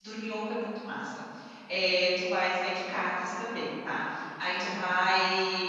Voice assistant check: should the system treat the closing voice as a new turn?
No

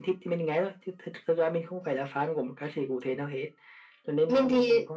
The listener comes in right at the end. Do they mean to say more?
No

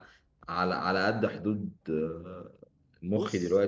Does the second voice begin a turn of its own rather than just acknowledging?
No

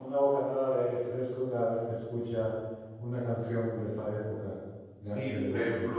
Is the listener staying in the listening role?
No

